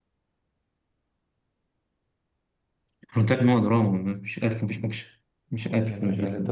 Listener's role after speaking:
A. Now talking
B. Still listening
A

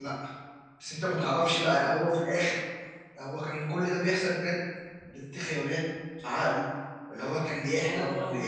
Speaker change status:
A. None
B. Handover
A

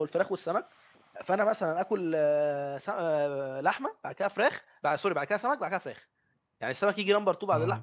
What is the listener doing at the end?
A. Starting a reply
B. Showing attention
B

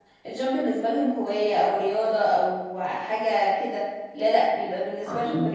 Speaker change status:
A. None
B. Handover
A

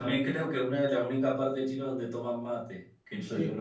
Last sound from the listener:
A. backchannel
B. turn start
B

